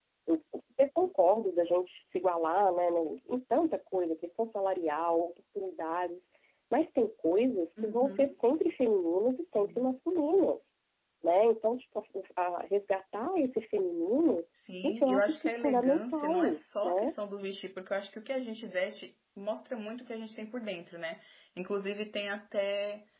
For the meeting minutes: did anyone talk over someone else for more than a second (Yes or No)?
Yes